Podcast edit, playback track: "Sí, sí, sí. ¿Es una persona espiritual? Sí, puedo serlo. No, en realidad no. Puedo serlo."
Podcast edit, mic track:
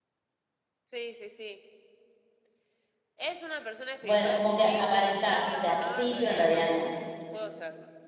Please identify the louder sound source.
user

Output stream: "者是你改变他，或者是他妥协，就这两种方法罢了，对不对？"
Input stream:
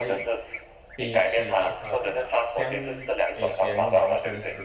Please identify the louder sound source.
echo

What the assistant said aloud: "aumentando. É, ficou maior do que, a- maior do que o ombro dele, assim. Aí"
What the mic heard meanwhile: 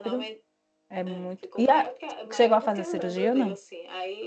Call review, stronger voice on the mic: user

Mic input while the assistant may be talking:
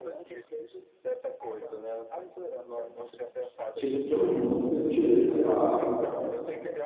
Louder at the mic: user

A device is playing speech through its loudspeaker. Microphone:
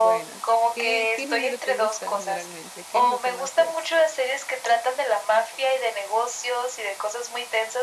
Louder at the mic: echo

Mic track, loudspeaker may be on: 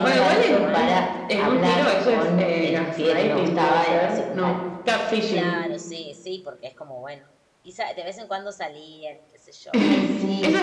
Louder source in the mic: echo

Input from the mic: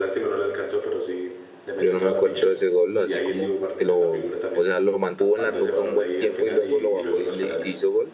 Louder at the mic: user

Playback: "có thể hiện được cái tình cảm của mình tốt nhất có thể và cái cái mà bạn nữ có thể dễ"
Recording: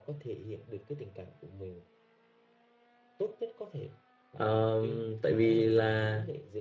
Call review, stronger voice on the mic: user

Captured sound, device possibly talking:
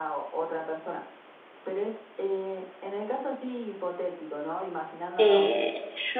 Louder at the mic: user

